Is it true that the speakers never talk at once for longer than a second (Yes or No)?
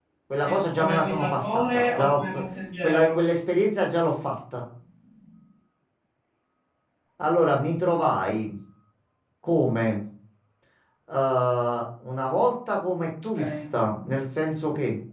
No